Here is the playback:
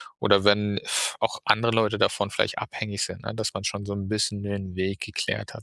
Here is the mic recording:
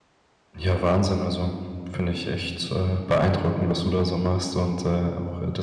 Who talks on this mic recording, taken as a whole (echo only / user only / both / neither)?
user only